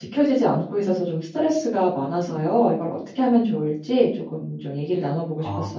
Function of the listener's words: taking over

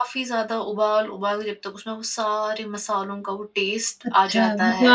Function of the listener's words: taking over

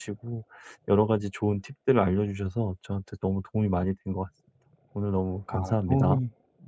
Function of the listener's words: taking over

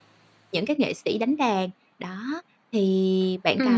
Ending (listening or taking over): taking over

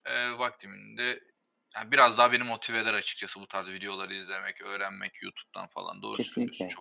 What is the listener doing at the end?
taking over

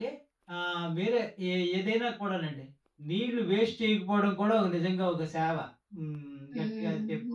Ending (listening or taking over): taking over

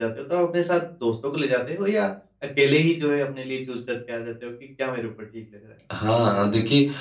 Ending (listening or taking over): taking over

